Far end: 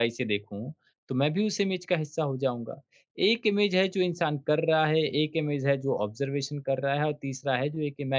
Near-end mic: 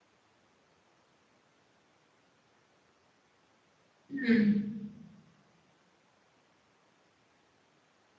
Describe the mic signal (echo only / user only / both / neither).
user only